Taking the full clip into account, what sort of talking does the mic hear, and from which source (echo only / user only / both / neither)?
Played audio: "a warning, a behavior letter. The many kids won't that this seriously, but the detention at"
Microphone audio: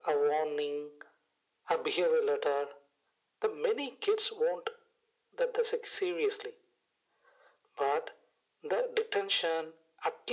echo only